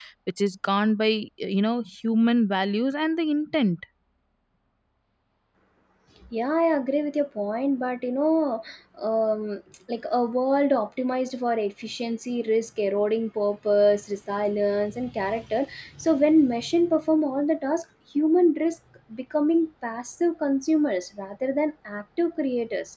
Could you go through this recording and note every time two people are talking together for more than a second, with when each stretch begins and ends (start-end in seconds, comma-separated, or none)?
none